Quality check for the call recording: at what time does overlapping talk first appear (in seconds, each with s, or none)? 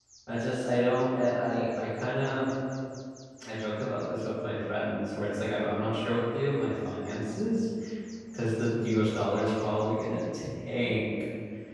none